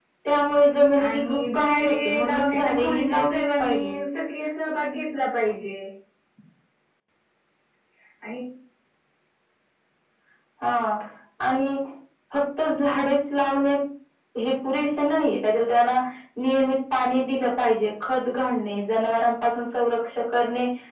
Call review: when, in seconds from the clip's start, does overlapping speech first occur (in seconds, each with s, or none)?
1.1 s